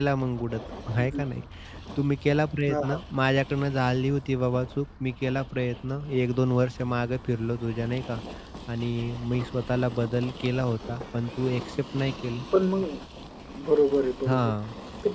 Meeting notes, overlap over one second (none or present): none